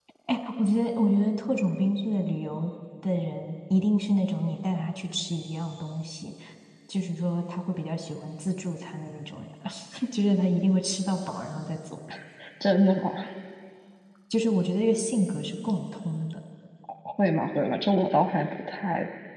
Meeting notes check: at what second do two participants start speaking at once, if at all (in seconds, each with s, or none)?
none